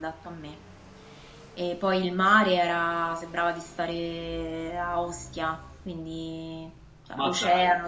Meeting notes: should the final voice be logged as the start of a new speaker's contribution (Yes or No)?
No